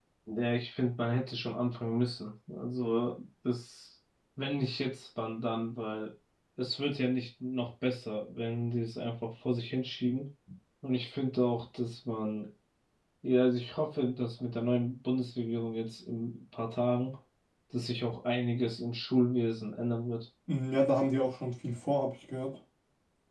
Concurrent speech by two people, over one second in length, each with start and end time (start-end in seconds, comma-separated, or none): none